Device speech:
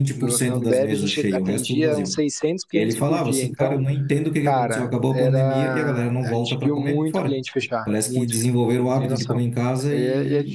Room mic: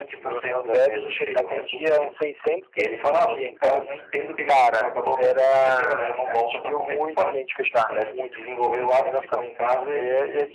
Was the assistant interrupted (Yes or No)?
No